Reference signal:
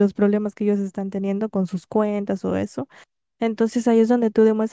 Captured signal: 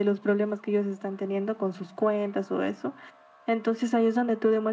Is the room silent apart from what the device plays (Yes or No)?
Yes